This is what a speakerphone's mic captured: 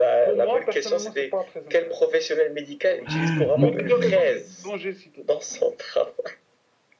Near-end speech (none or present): present